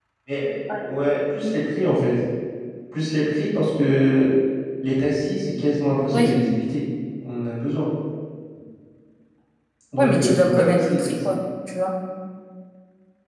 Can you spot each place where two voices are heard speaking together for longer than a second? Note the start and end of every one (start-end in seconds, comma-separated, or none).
10.0-11.3